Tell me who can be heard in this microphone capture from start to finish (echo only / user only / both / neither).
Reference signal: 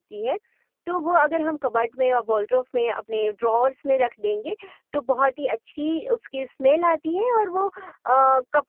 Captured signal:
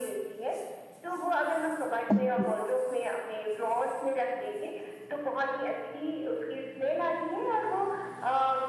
both